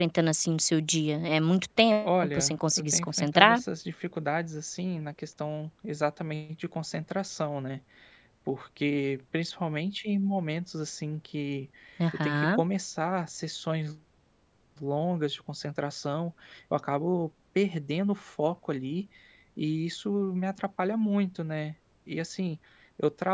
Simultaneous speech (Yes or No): Yes